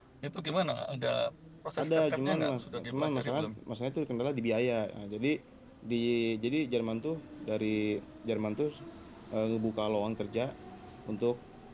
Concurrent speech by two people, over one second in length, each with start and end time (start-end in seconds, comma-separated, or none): 1.8-3.5